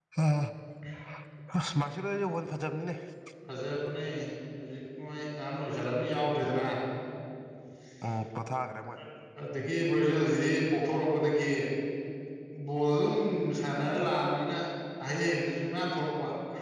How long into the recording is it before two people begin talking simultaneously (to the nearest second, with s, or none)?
none